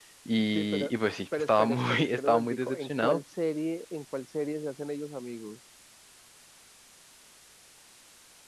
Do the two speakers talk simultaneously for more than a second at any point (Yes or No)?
Yes